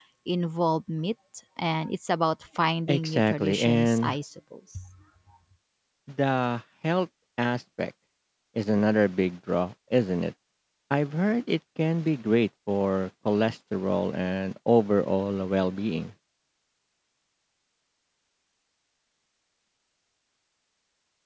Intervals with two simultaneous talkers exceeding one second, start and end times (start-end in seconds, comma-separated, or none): 2.9-4.2